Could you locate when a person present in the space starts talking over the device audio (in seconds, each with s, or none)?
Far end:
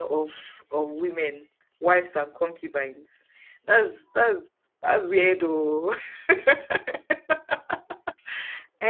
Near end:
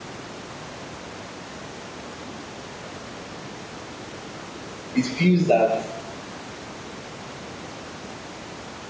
4.9 s